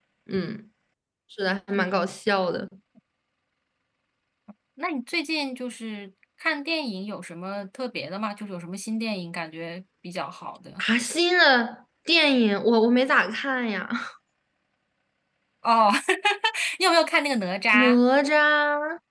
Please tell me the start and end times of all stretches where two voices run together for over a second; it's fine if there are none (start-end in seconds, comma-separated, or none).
none